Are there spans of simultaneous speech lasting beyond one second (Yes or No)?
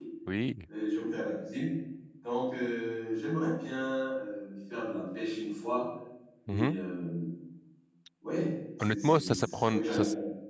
Yes